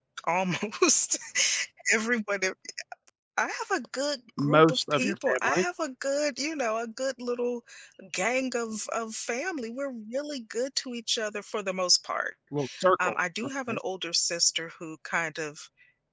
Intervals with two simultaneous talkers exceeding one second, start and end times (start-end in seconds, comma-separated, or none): 4.4-5.6